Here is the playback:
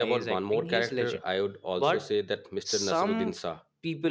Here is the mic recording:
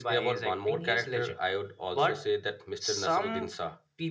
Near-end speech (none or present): none